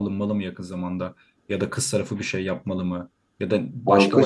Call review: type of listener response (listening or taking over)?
listening